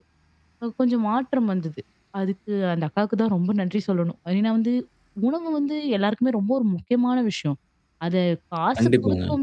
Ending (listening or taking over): listening